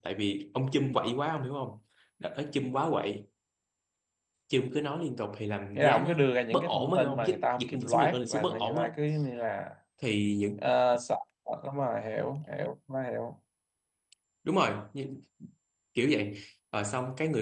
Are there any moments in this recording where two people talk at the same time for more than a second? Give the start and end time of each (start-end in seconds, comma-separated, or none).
5.8-8.9